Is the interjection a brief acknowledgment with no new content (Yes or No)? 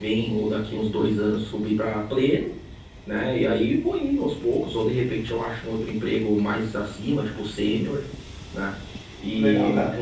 Yes